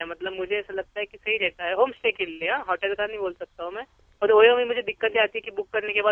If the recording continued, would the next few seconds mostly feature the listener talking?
No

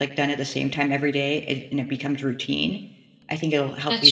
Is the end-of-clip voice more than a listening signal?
No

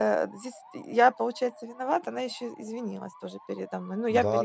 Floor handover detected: Yes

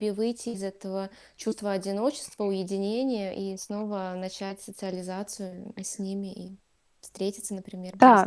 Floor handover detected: Yes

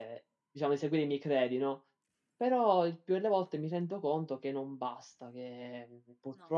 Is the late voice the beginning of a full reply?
No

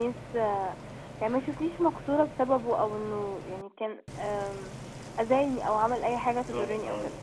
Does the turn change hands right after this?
Yes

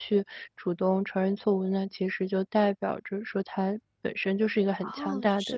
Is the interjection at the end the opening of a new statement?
Yes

